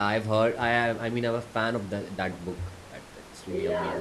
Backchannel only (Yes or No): No